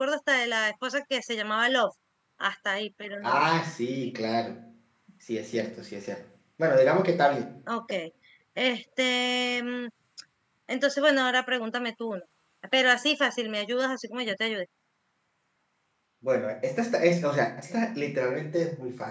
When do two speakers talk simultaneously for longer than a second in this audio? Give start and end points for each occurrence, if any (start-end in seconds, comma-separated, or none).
none